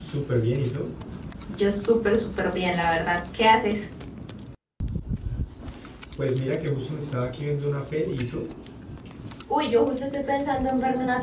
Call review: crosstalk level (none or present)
none